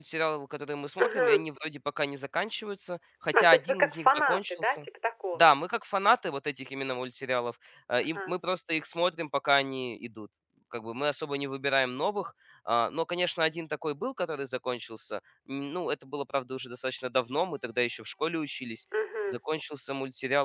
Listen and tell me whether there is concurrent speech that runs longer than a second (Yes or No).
Yes